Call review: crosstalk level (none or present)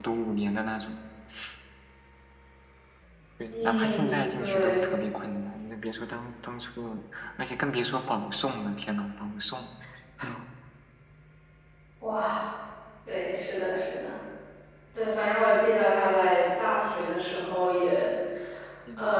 present